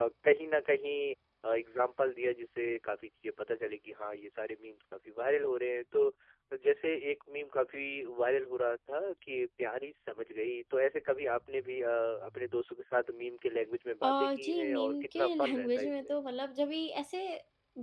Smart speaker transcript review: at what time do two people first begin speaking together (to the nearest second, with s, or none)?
14 s